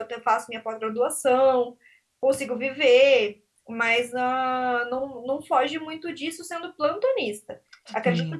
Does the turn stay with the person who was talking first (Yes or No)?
Yes